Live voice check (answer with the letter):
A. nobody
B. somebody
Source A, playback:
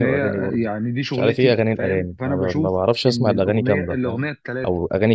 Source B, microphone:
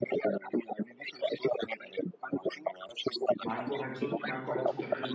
B